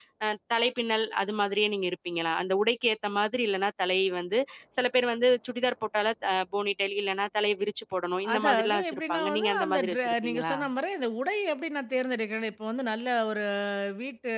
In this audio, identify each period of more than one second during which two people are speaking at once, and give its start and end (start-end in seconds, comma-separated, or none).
8.3-10.6